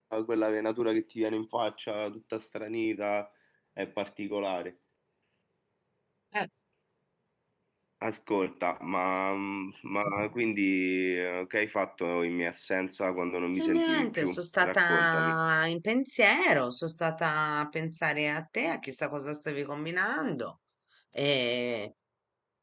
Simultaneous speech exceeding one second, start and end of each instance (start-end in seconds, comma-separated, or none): 13.6-15.4